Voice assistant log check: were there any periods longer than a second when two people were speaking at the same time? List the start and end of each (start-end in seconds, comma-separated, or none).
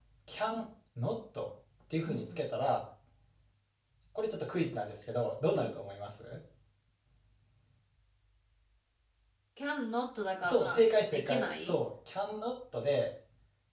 10.4-11.7